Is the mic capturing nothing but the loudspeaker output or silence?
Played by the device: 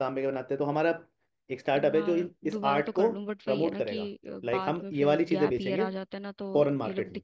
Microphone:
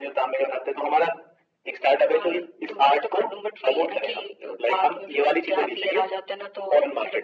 Yes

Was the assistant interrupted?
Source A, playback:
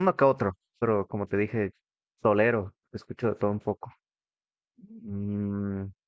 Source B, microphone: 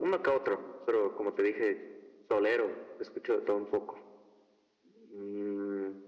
No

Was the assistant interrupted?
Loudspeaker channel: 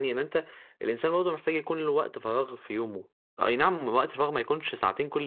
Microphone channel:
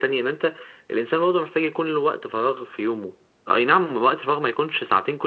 No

